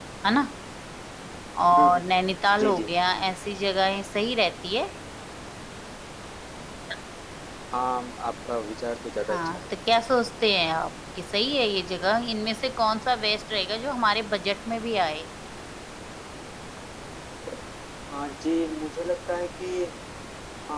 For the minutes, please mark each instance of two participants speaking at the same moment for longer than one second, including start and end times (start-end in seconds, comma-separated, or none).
none